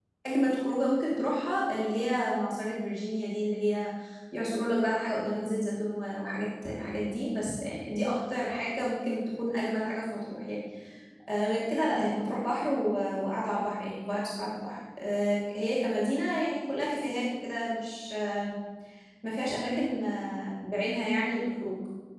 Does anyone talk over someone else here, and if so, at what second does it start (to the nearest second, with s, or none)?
none